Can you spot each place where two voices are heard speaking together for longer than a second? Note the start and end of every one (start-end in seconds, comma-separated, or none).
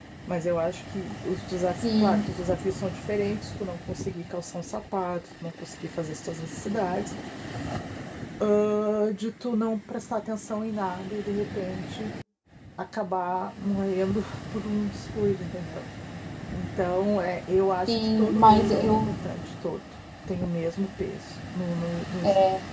17.9-19.1